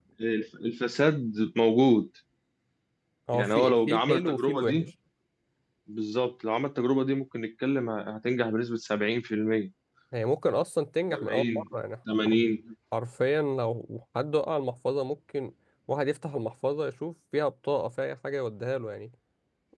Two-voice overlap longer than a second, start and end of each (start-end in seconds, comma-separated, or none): 3.3-4.9